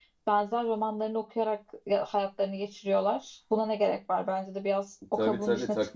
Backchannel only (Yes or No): No